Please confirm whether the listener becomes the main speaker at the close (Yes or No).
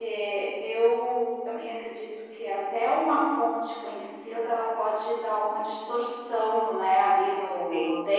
No